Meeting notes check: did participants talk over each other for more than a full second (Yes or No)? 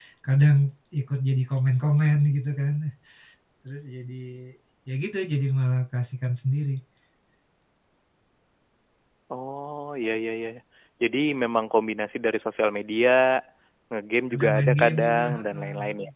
Yes